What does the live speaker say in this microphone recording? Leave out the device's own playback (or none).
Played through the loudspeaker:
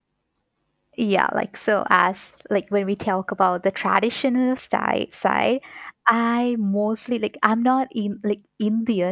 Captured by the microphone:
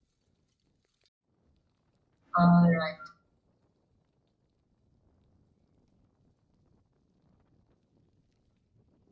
All right.